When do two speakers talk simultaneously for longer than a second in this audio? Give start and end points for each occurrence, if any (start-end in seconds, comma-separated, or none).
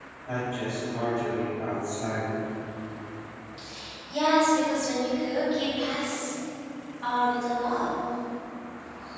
none